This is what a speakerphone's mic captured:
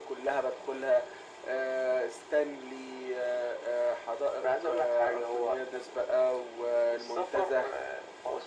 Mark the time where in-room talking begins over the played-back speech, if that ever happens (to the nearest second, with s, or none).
none